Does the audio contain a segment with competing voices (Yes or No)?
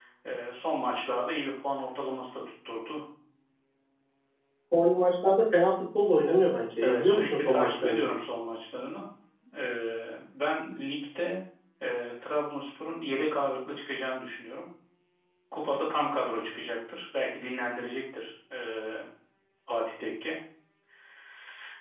Yes